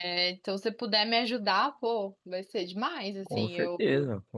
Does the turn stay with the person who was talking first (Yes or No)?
No